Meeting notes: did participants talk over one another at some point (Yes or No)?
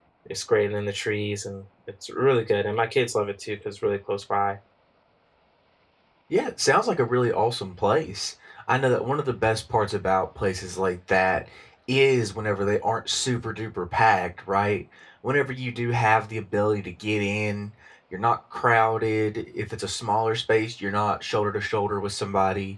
No